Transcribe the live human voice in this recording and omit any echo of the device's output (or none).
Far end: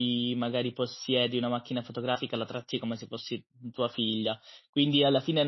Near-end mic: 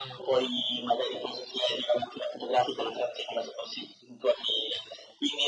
none